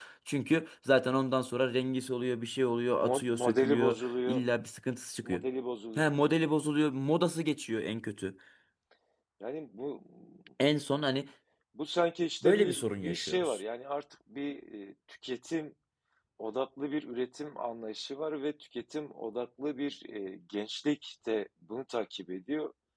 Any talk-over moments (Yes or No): Yes